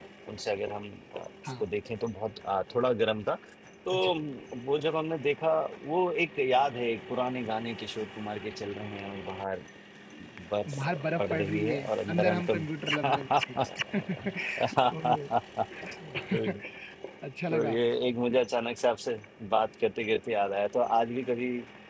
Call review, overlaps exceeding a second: present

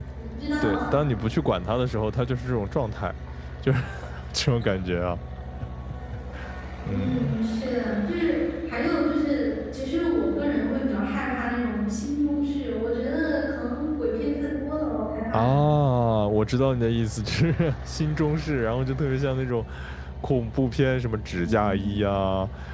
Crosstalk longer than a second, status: none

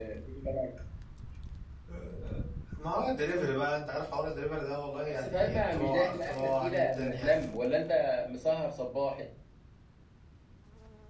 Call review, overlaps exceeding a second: present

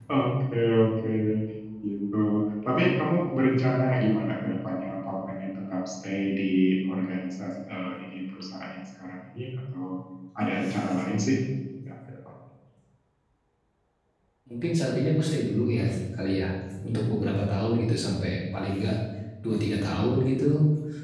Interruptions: none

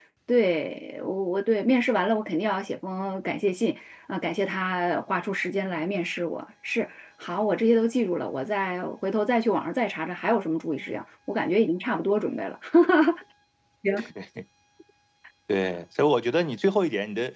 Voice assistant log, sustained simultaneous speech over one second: none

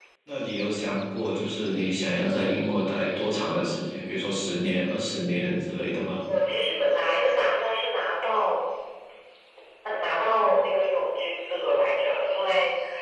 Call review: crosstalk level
none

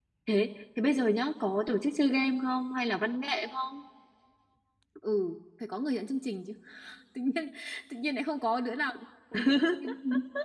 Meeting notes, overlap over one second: none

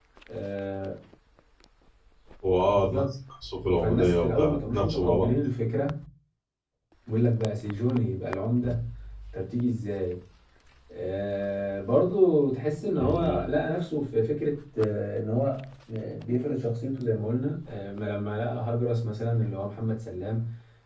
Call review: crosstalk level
present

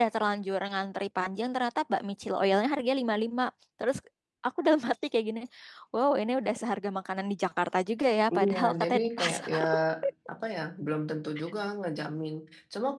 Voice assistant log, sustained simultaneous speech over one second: present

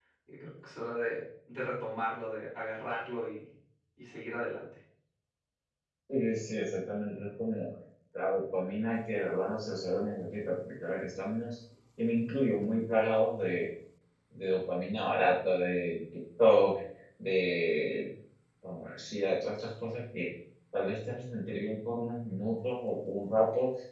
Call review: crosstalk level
none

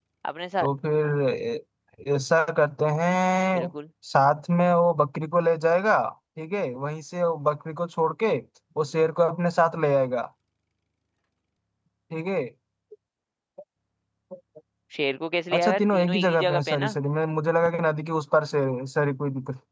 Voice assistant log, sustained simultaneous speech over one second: present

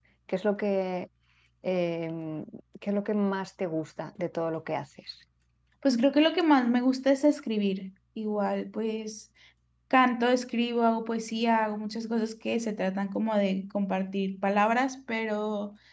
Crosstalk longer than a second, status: none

